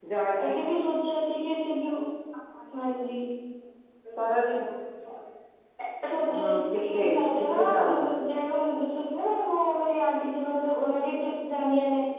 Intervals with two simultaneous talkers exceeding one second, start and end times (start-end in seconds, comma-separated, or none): 6.3-8.0